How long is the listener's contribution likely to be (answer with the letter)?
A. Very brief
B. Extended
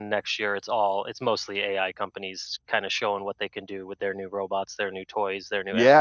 B